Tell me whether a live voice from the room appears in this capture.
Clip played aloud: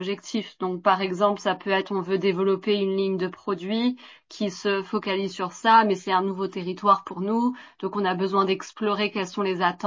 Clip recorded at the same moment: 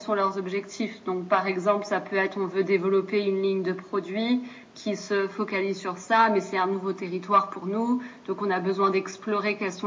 No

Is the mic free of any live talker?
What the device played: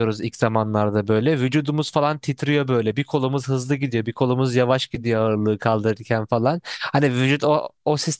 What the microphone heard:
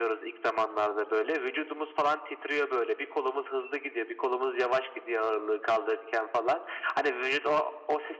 Yes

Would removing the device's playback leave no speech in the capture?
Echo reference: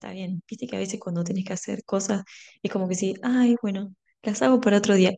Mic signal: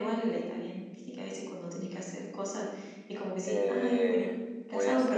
No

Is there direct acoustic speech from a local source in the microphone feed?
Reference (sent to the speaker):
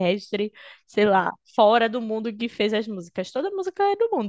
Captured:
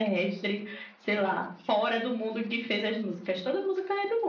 No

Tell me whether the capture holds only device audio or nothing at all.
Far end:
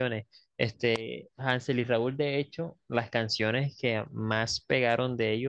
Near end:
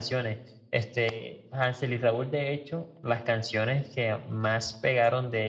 Yes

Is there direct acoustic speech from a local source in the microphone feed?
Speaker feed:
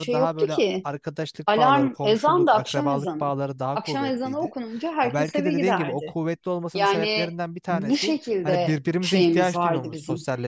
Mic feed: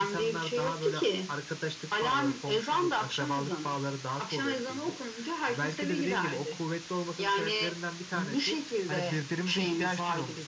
No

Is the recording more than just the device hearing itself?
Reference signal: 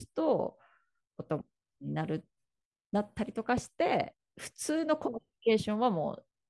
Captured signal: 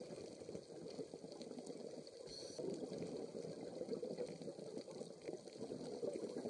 No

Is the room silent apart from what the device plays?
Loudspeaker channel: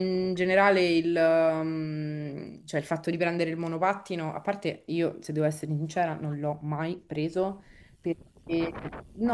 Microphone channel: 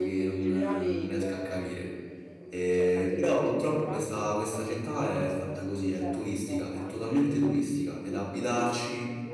No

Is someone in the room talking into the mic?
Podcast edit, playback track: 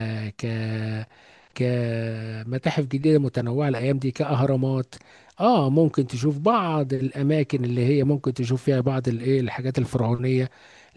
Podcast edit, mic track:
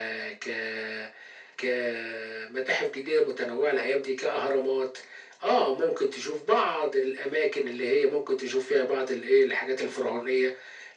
No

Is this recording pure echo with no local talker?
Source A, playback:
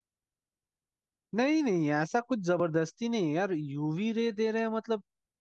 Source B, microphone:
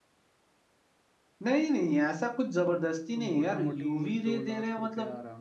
No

